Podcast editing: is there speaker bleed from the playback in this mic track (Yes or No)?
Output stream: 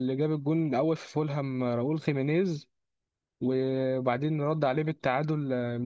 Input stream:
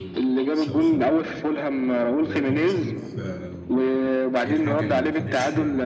Yes